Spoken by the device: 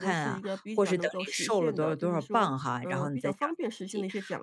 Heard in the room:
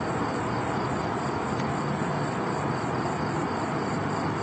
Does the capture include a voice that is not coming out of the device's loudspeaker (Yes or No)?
No